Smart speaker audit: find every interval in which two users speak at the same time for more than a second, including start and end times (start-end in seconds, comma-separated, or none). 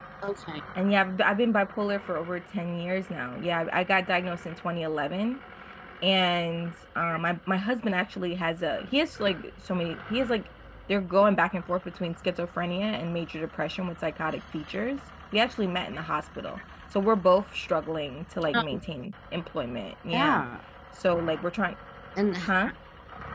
none